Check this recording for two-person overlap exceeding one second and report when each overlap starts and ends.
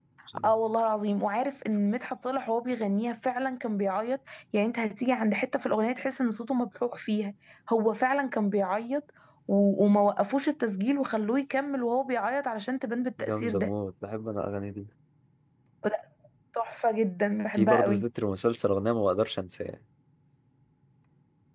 none

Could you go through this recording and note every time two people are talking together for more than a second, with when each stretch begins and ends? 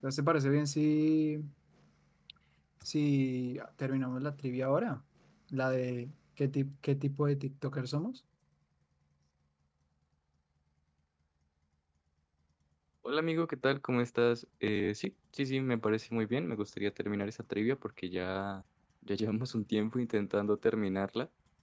none

